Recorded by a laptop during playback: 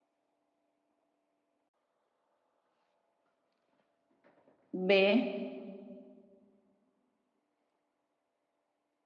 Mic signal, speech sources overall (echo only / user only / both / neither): user only